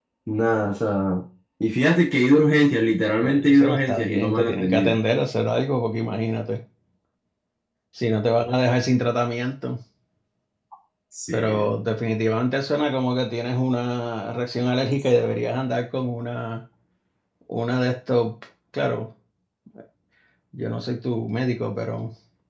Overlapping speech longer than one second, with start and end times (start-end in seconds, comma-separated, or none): 3.2-5.0